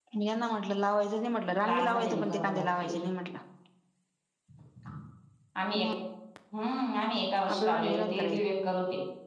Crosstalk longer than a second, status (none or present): present